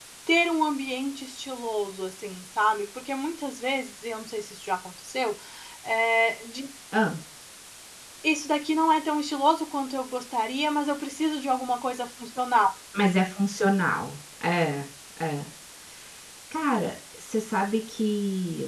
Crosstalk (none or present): none